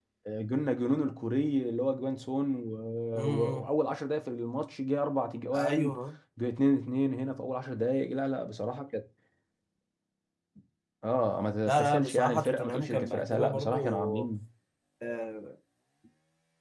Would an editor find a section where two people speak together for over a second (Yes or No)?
Yes